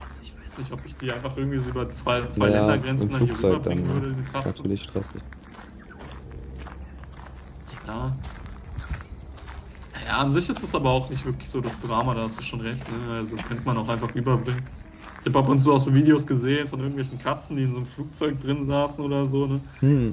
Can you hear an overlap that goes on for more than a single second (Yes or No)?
Yes